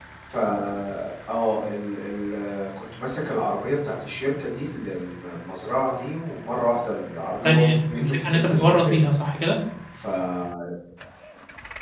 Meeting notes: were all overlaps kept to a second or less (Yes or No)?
No